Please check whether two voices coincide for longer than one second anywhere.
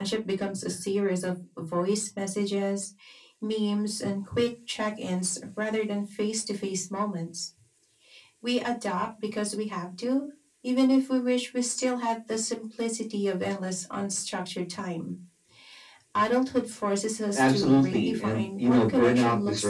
Yes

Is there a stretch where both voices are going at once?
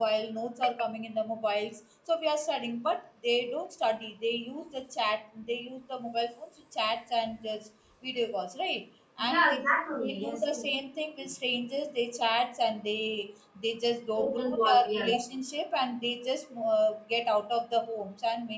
Yes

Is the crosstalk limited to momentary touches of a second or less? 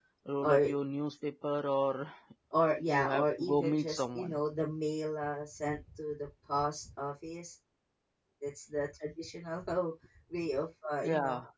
No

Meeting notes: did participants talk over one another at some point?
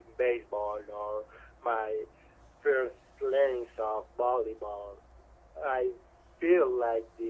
No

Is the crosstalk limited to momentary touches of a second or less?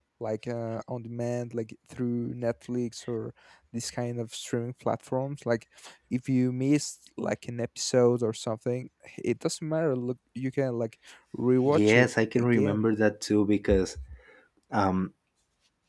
No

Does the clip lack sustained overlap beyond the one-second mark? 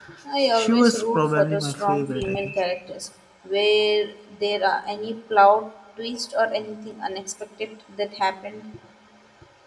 No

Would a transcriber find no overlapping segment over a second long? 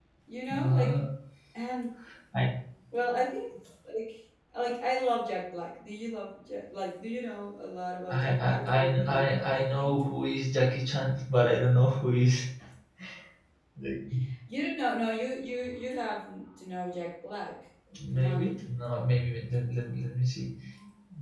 No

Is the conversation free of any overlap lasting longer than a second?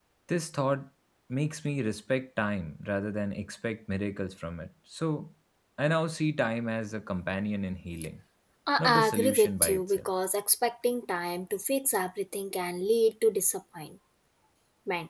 No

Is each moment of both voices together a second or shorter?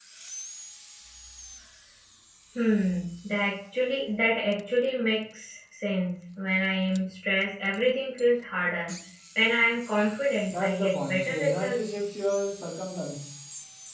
No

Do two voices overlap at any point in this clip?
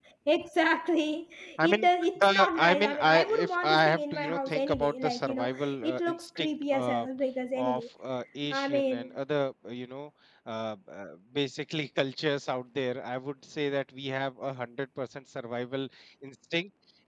Yes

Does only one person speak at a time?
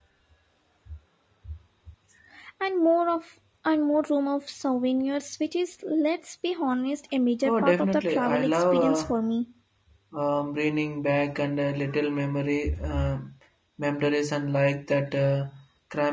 No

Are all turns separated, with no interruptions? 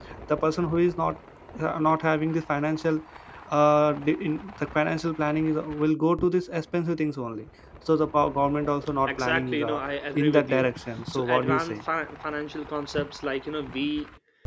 No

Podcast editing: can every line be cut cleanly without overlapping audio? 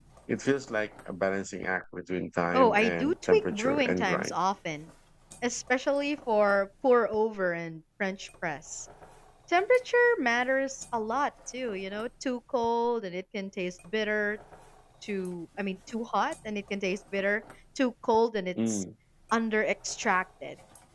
No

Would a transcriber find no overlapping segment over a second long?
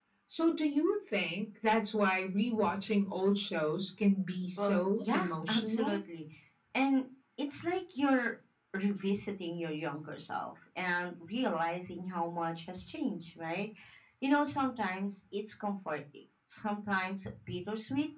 No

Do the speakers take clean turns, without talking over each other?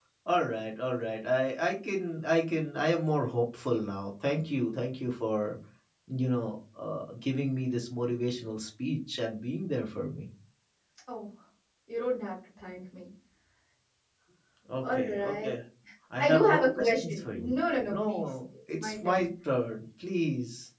No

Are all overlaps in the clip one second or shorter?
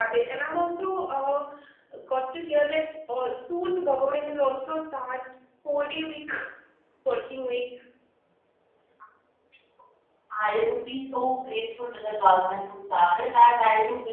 Yes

